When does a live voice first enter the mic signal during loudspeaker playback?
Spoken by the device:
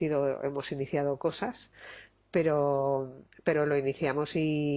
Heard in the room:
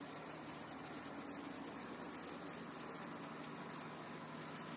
none

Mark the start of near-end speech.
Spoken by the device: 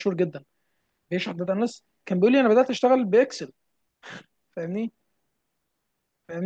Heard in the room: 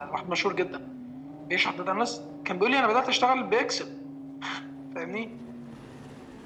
none

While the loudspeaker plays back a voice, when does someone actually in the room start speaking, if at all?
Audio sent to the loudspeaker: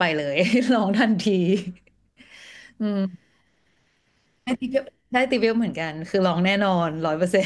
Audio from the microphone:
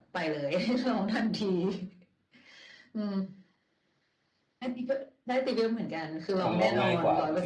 6.4 s

